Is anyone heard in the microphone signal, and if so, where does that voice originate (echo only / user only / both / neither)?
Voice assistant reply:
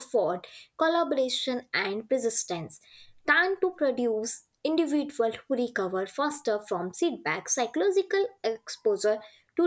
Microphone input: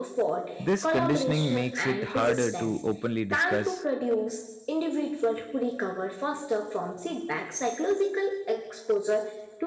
both